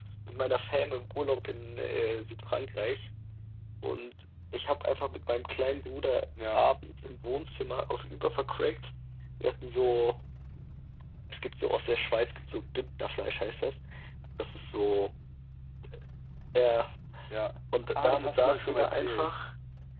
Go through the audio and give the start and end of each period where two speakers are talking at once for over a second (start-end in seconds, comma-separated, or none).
17.8-19.4